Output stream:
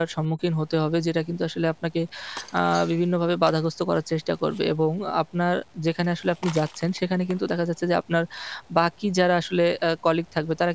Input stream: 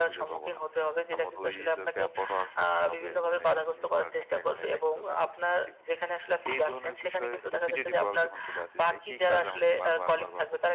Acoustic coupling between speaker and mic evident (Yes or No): Yes